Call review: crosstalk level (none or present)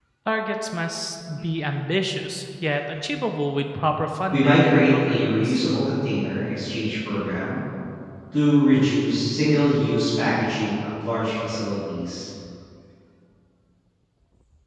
present